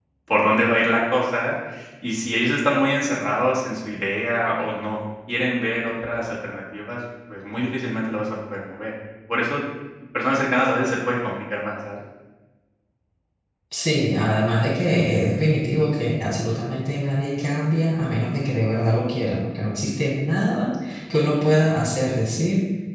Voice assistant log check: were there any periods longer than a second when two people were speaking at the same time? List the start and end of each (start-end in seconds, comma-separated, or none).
none